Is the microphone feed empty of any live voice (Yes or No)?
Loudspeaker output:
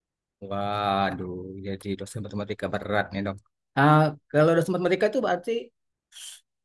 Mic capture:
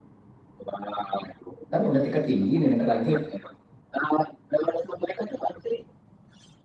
No